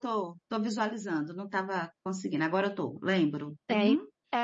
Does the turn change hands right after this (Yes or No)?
Yes